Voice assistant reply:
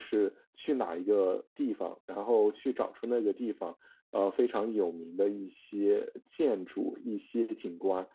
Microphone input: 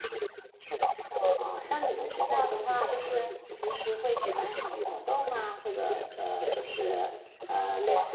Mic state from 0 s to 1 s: echo only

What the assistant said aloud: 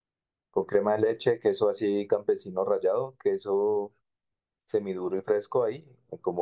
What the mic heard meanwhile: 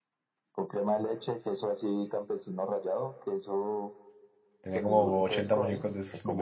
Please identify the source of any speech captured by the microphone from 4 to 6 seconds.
both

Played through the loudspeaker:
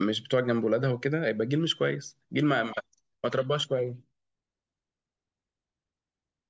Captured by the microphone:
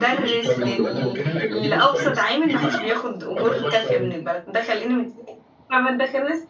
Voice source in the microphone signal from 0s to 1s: both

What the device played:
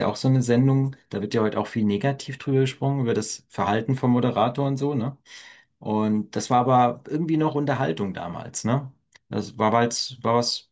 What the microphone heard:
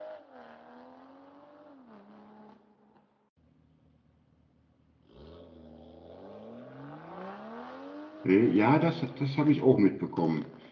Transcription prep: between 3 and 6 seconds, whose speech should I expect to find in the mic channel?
neither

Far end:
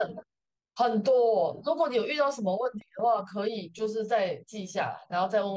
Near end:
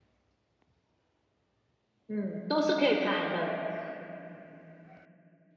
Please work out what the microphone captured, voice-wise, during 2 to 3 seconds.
user only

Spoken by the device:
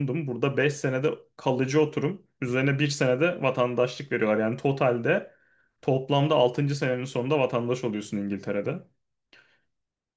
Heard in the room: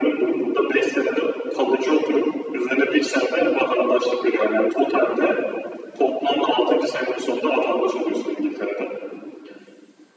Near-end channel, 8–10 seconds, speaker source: echo only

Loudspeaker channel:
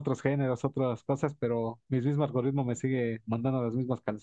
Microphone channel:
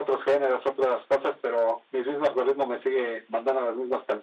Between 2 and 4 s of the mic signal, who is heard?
echo only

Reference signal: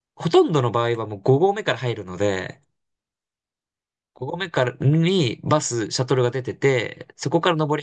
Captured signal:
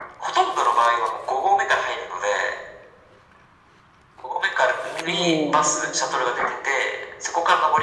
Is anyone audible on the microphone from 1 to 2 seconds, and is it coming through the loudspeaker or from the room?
echo only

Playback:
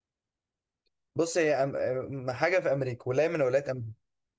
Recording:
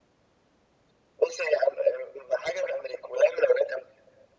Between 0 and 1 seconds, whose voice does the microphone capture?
neither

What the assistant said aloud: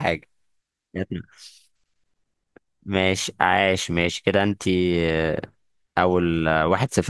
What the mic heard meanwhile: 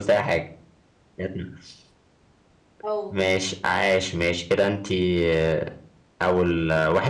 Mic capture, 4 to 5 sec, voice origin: echo only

